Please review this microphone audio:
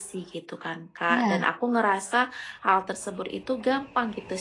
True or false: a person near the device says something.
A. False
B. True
B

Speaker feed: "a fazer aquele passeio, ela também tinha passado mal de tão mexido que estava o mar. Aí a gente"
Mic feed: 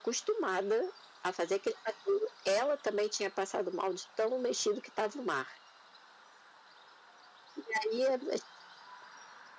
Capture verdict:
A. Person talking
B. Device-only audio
B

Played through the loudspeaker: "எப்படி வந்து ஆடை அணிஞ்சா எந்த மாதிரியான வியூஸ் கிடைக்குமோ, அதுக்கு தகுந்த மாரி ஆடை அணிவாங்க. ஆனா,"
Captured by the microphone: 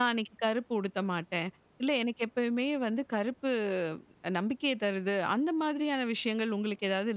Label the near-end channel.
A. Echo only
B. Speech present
B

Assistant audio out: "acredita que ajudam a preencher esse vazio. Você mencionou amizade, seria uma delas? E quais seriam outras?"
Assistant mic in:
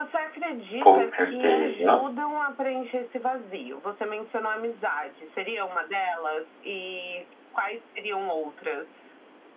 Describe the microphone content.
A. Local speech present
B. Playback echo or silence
A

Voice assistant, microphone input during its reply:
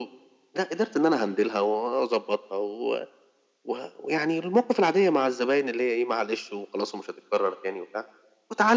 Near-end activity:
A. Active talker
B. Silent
B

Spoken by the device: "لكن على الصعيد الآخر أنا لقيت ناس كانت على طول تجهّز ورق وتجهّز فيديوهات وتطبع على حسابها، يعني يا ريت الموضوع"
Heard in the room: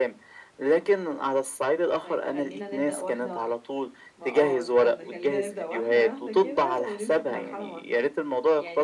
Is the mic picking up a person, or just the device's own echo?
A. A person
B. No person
A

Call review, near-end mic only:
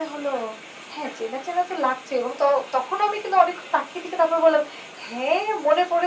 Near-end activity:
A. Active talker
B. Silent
B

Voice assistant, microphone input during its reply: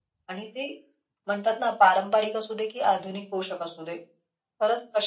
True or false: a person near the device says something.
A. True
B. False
B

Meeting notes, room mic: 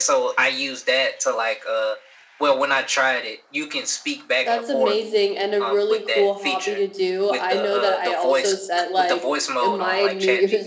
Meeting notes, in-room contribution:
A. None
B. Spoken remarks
B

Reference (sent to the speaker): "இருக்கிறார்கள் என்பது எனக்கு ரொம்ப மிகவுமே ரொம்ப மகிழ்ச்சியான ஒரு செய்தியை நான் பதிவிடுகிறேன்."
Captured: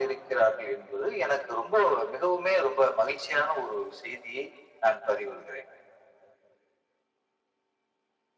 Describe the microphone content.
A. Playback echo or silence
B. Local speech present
A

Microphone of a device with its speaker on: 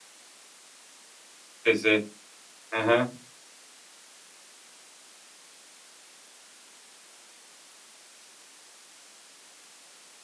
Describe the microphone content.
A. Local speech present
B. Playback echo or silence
A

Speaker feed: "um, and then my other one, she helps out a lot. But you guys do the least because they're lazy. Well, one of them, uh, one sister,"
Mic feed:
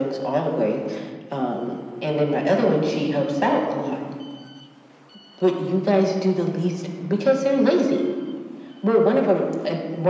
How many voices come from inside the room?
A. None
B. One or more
A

